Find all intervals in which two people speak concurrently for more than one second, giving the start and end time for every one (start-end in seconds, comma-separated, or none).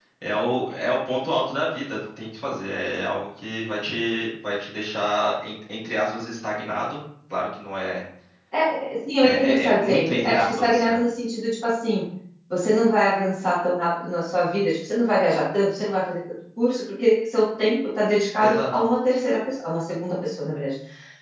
9.2-11.0